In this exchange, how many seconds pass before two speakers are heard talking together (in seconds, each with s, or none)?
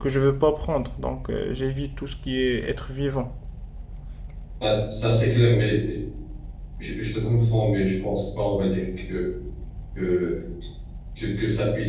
none